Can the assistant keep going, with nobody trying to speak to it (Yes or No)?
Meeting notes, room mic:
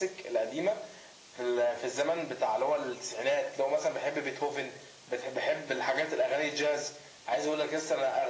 Yes